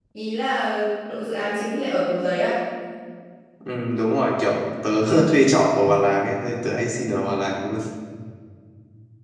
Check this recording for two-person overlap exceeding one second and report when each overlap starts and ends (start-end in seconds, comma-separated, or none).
none